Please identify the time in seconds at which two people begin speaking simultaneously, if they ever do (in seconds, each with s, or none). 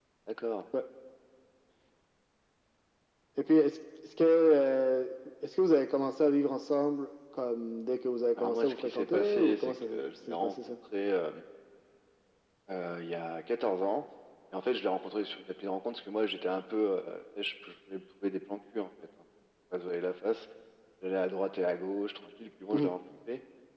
8.4 s